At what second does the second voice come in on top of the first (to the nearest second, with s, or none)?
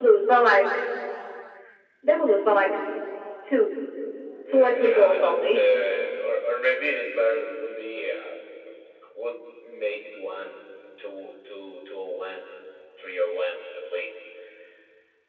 4 s